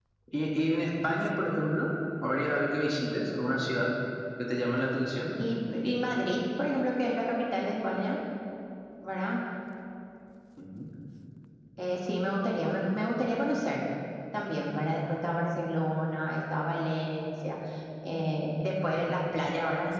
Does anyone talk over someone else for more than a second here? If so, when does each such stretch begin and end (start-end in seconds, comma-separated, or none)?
none